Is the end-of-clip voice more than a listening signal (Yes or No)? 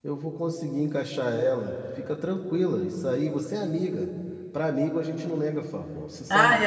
Yes